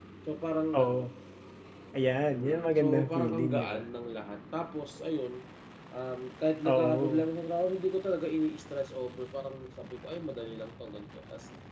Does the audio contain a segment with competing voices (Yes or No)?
Yes